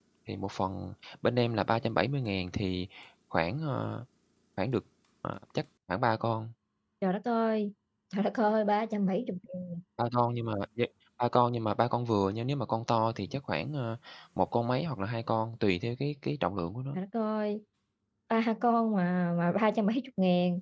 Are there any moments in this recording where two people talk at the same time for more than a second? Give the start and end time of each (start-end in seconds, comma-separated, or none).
none